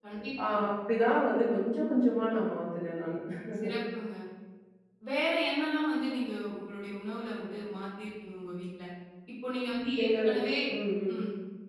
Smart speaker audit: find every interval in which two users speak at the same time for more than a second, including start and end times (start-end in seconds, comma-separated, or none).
none